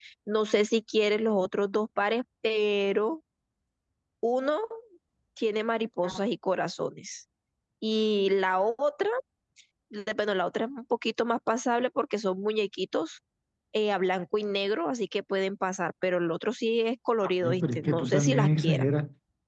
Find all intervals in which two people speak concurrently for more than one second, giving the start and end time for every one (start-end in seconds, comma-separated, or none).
17.2-18.9